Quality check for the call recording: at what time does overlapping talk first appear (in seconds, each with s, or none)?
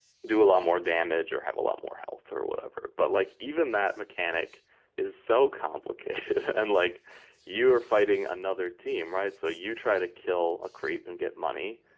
none